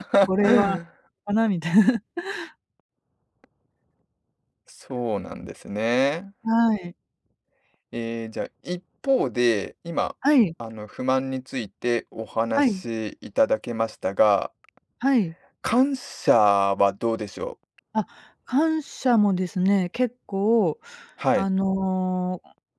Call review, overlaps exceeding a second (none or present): none